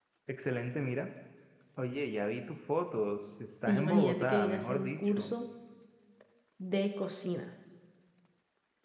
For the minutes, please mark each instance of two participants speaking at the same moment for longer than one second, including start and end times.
3.7-5.3

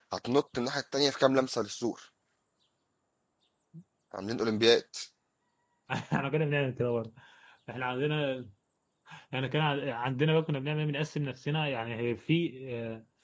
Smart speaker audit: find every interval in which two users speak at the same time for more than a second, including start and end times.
none

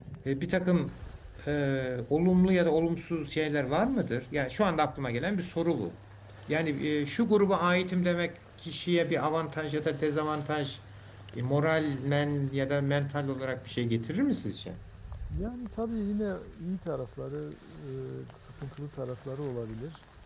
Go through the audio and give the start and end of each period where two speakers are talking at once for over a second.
none

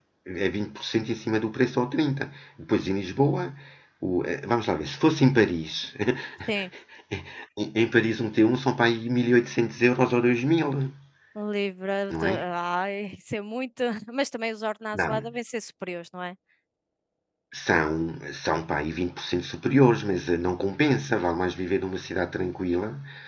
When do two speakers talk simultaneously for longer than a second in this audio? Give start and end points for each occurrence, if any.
none

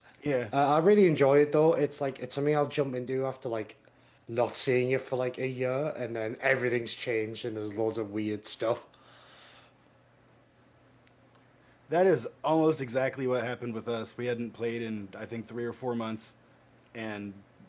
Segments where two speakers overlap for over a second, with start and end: none

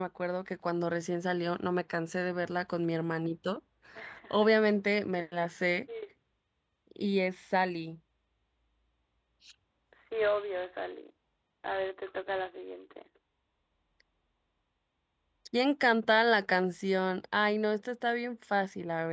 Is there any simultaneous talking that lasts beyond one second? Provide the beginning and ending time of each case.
none

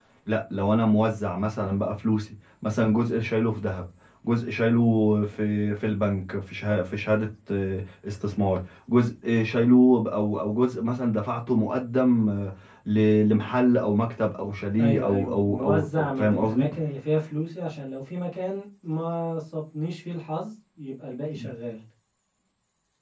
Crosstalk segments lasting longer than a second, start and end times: 14.8-16.7

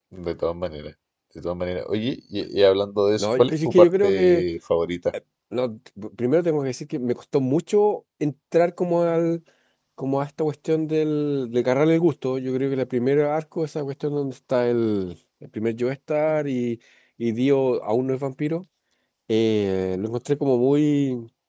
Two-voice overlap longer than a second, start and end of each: 3.2-4.4

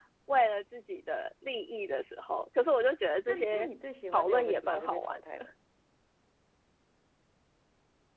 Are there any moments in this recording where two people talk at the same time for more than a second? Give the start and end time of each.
4.1-5.5

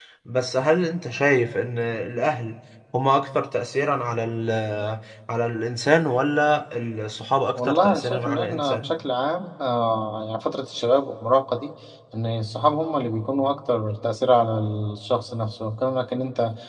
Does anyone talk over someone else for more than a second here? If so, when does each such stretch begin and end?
7.6-8.9

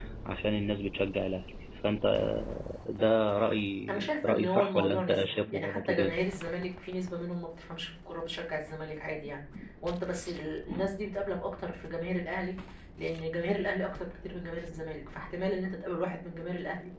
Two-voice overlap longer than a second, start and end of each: 3.9-6.1

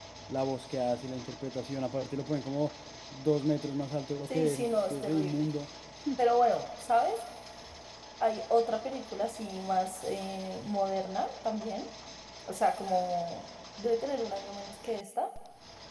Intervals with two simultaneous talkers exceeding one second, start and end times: 4.3-5.5

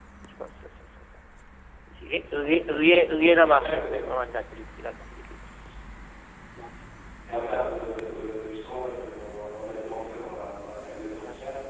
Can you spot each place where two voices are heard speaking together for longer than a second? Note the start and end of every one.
2.8-4.0

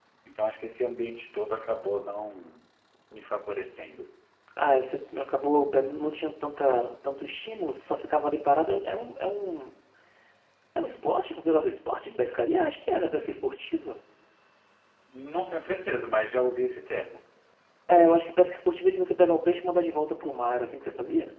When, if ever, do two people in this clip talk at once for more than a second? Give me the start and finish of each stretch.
none

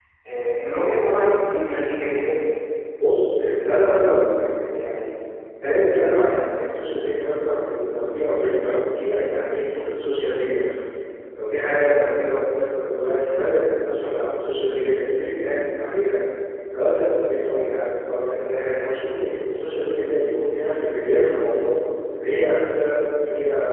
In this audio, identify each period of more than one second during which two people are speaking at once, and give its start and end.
none

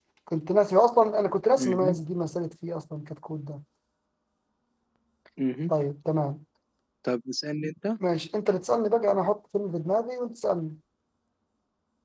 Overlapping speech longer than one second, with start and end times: none

